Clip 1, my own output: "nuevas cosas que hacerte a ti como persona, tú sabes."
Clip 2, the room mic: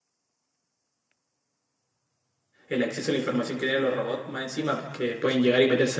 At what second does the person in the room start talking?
2.7 s

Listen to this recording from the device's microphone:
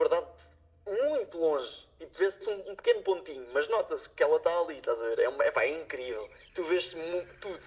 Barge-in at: none

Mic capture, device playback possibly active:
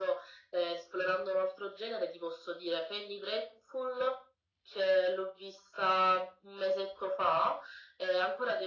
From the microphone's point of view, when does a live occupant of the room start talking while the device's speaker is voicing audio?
none

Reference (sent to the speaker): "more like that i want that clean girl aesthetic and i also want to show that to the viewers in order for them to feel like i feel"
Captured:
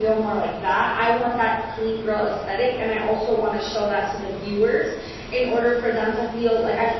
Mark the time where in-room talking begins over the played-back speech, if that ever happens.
none

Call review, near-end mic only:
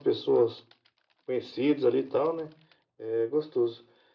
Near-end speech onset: none

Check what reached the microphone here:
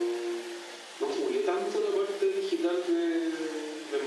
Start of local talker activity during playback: none

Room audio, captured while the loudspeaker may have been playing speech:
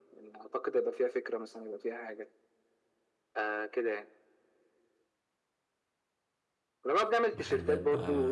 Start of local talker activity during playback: 7.3 s

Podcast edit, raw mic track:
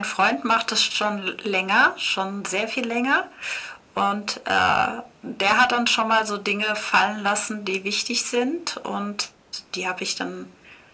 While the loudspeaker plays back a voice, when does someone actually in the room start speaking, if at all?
none

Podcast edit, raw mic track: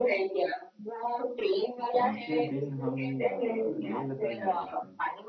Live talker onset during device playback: 1.9 s

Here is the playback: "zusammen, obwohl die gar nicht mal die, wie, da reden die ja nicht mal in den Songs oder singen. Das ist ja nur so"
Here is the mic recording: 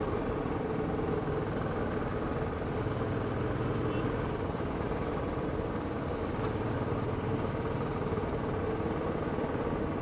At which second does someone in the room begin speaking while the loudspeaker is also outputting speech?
none

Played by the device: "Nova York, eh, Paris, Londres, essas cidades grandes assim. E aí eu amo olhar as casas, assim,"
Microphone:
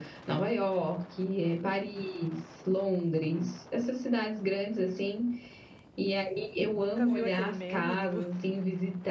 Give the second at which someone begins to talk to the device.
6.7 s

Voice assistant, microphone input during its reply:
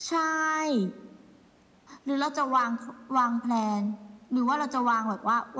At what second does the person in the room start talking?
none

